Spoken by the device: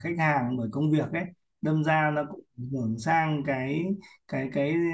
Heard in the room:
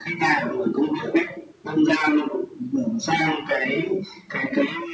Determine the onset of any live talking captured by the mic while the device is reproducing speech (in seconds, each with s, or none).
none